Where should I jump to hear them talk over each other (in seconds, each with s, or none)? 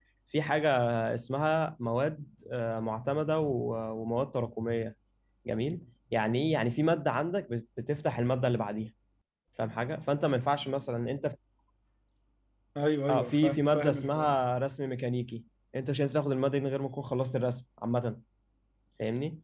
13.1 s